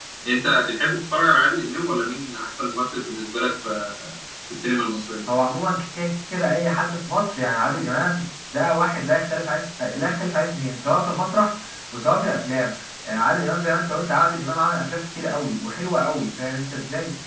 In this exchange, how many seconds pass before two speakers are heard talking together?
none

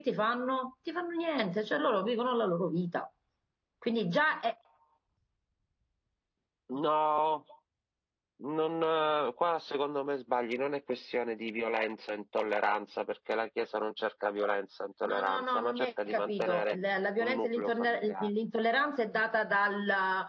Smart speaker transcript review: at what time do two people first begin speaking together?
15.1 s

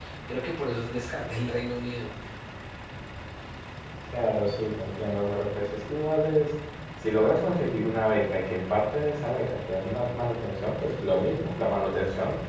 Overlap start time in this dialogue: none

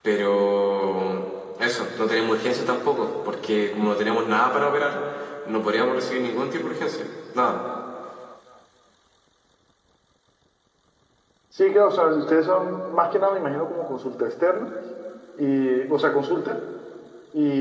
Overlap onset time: none

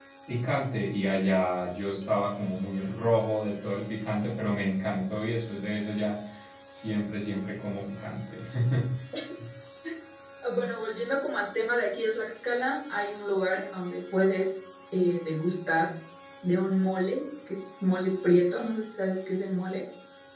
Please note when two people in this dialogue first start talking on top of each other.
none

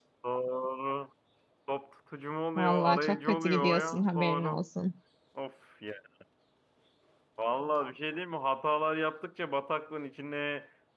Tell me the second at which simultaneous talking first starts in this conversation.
2.5 s

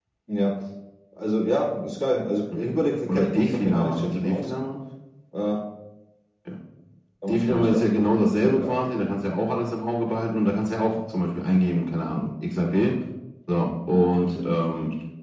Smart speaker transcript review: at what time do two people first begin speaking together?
3.1 s

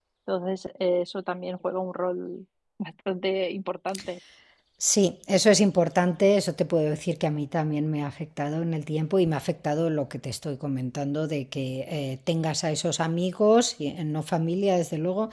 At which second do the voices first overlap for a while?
none

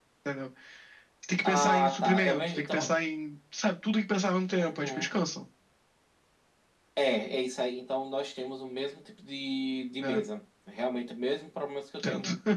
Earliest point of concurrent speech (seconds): 1.4 s

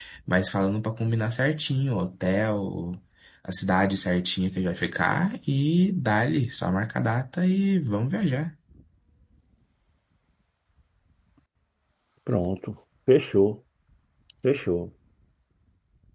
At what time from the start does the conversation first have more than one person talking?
none

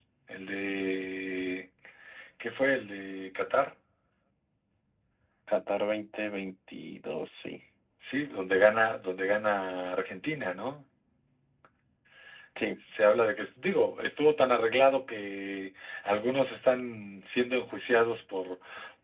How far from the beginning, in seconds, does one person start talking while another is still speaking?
none

